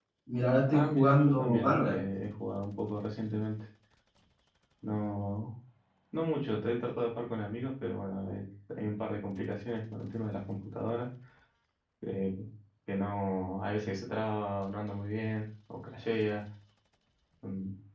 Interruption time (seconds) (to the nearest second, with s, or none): 1 s